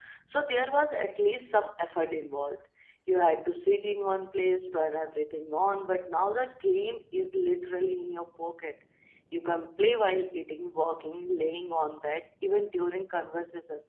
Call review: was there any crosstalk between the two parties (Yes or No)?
No